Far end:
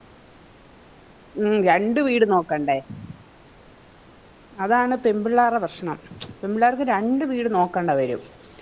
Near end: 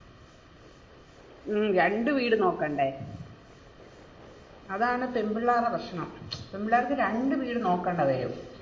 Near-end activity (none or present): none